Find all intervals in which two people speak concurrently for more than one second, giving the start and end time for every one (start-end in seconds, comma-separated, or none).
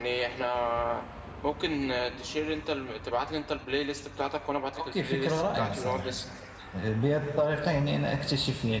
4.8-6.1